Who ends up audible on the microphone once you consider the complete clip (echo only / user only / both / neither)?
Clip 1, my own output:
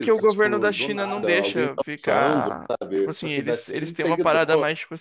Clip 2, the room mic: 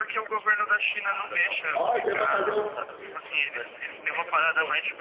both